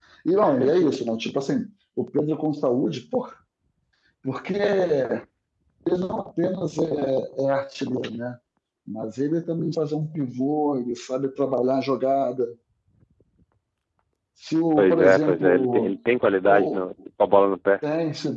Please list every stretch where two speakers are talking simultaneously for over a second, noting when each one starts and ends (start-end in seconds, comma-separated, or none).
14.8-16.0